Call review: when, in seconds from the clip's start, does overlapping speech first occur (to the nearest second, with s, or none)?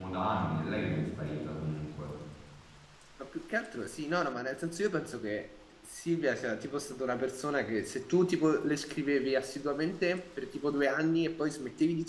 none